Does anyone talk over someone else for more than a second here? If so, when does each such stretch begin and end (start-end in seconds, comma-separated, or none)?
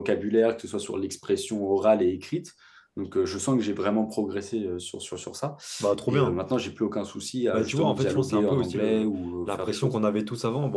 7.5-9.1